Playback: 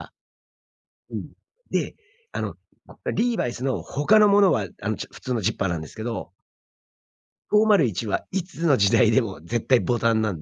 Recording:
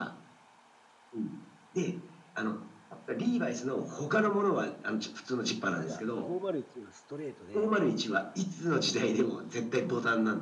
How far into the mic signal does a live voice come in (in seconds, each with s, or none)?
5.7 s